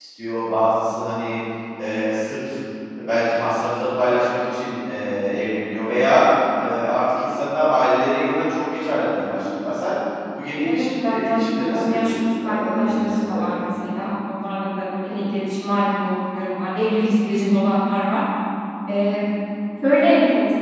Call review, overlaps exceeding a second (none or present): present